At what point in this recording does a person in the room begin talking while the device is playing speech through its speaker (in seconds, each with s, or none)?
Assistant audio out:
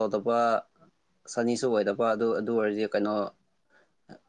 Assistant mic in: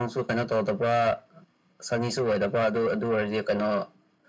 none